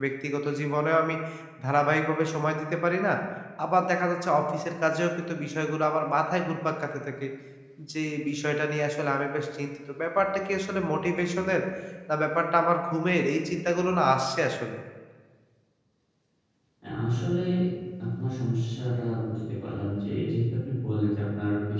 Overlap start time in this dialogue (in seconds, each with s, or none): none